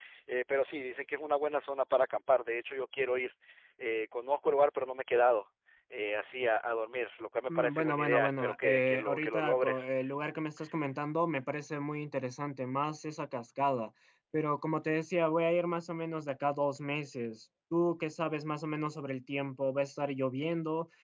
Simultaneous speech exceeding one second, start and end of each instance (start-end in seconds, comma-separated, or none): 7.5-9.8